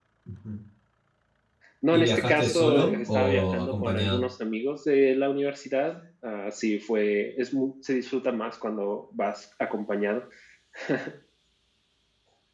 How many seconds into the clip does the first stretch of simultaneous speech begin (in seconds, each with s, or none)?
1.9 s